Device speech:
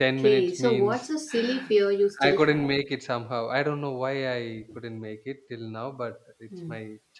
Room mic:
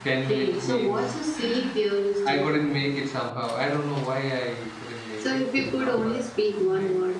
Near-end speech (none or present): present